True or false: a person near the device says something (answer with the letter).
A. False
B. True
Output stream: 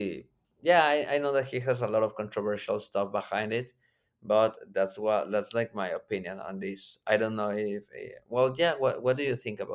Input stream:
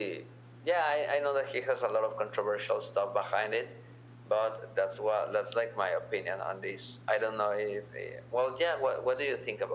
A